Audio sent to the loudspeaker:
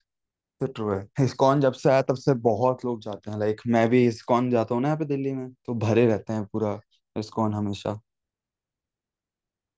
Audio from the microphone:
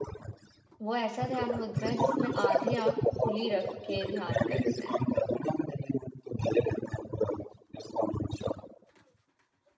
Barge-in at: 0.8 s

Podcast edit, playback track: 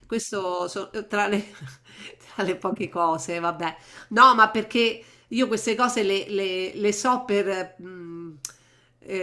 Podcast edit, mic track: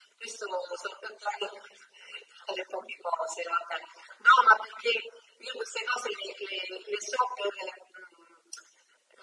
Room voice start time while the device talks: none

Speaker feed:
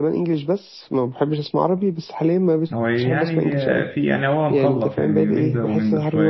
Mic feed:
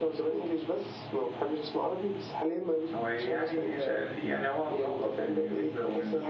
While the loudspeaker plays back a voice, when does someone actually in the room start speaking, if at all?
none

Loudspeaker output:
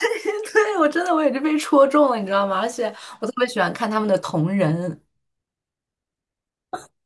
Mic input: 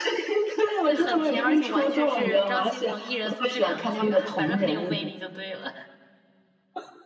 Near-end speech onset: 0.8 s

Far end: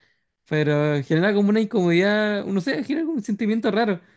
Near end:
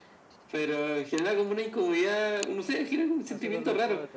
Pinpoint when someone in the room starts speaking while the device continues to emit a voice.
3.3 s

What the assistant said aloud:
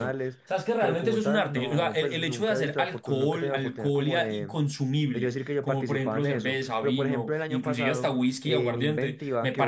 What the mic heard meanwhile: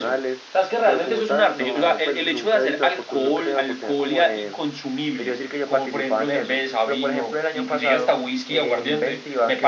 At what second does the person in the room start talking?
none

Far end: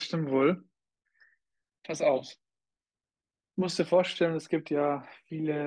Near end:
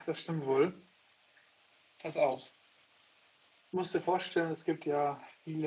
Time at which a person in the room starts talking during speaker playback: none

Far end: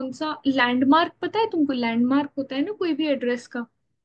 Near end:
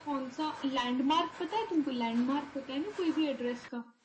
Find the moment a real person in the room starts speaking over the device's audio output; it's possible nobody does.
none

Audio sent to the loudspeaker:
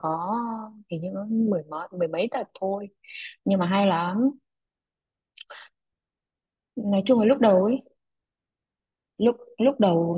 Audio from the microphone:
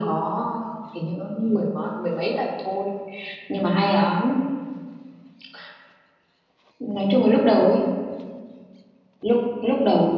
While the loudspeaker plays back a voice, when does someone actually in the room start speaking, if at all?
none

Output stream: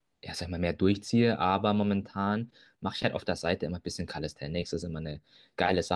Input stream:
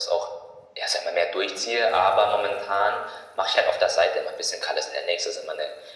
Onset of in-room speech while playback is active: none

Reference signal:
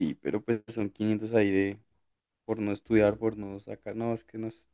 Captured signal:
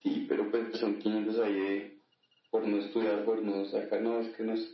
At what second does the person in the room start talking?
none

